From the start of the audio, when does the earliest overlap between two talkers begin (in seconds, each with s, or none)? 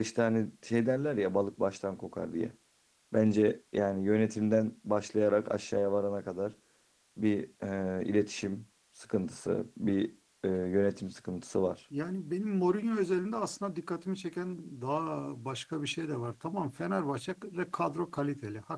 none